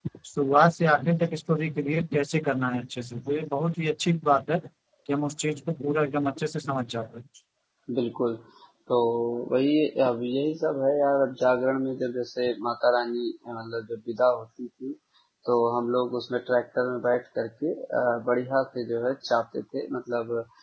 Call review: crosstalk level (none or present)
none